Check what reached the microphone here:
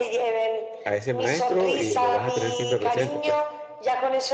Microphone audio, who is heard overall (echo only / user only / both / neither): both